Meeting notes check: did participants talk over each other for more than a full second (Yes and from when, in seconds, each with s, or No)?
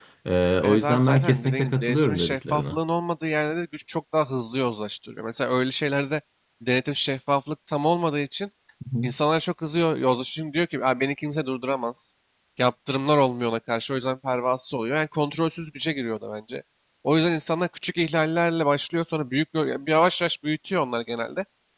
Yes, from 0.6 s